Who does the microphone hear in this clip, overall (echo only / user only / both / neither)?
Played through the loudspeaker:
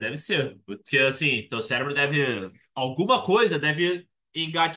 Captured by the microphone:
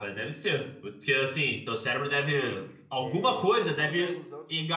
both